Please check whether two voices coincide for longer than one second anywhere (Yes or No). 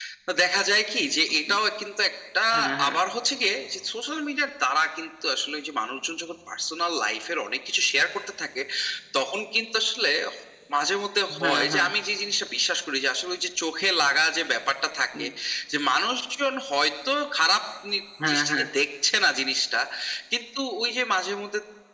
No